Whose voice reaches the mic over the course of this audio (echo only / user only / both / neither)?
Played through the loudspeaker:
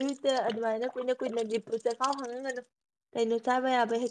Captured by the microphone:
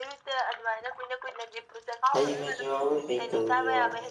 both